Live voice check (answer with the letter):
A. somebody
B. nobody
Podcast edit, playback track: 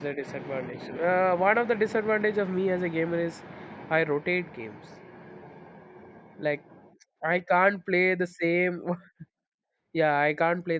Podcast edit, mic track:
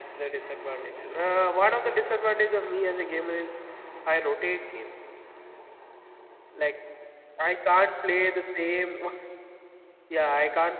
B